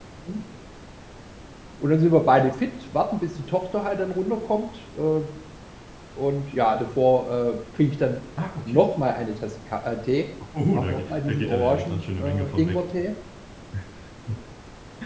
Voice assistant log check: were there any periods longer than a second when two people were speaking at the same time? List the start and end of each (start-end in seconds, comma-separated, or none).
10.7-12.8